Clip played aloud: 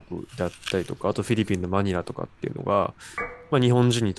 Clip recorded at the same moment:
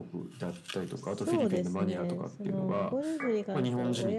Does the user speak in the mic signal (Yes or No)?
Yes